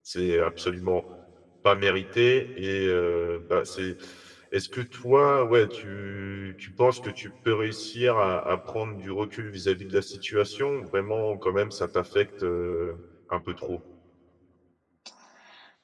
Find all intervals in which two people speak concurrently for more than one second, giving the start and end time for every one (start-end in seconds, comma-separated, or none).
none